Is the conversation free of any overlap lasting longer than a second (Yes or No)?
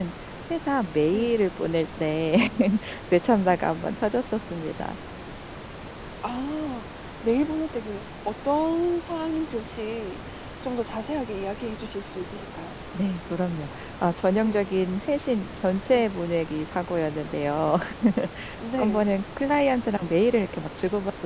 Yes